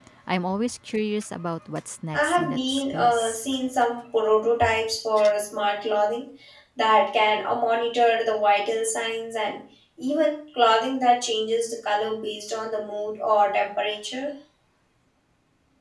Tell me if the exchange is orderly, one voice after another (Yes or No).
No